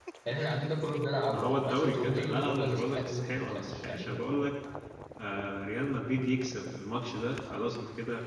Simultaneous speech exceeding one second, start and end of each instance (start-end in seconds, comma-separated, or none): 1.3-4.2